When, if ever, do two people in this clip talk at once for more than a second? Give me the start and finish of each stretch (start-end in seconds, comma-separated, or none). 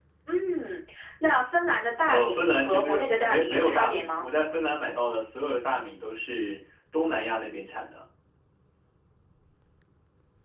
2.1-4.3